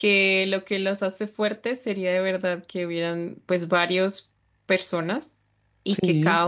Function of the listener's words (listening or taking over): listening